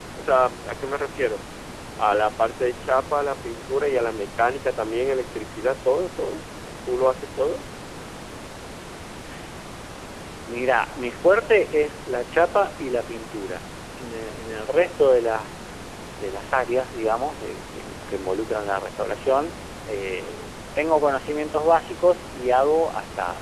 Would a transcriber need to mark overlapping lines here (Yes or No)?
No